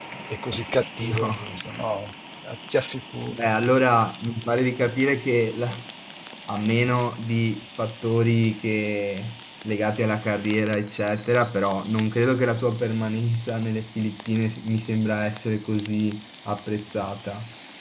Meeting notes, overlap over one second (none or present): none